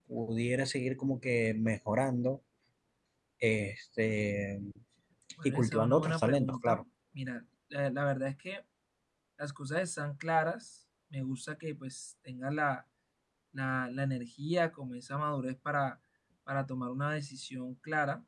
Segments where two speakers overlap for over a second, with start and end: 5.5-6.8

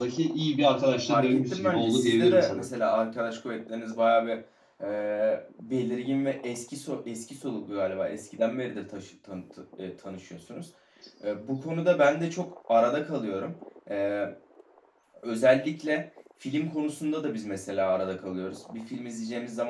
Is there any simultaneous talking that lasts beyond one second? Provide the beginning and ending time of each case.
1.1-2.7

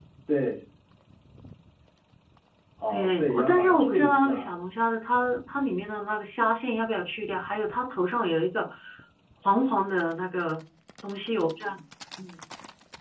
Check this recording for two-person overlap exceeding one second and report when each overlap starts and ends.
2.9-4.5

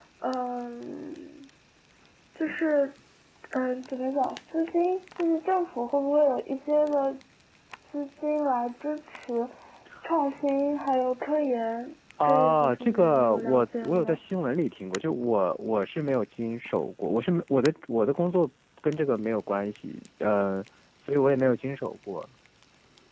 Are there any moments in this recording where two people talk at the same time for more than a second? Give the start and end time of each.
12.2-14.2

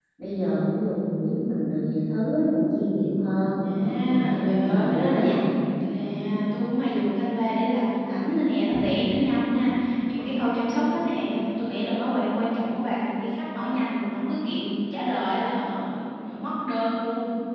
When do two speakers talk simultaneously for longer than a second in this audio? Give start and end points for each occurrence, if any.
3.6-5.4

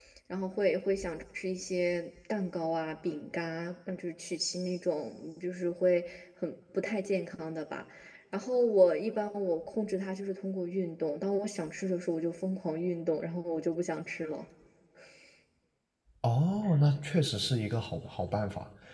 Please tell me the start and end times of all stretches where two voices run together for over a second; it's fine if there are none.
none

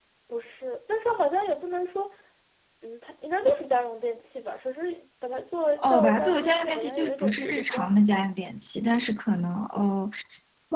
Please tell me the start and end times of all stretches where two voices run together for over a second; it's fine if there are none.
5.8-7.9

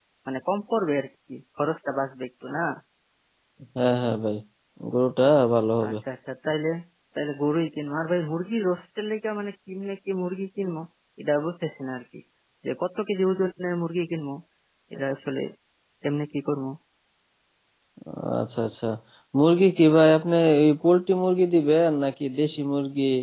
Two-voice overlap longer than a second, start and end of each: none

